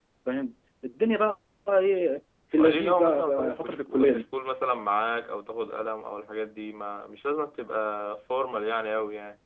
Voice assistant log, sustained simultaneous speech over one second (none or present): present